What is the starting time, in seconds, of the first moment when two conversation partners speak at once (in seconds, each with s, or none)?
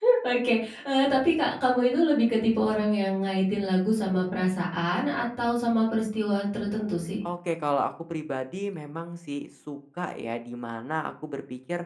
none